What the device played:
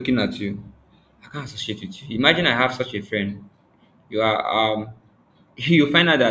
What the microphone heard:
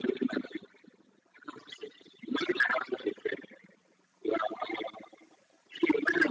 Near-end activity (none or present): none